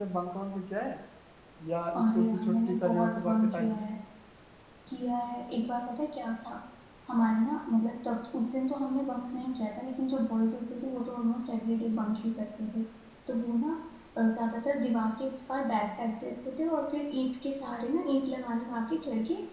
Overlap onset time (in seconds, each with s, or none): 2.0 s